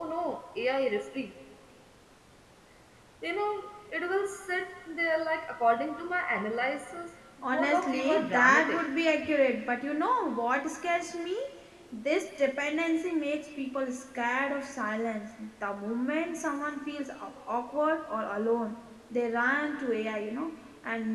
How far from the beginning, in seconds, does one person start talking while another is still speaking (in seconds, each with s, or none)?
7.4 s